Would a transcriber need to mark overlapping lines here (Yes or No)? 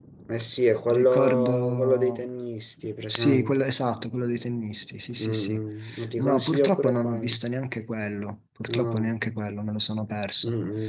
Yes